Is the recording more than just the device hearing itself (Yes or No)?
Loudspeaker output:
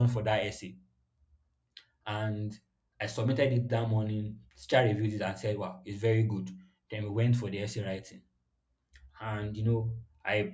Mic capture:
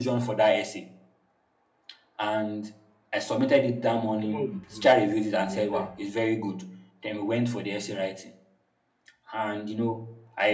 Yes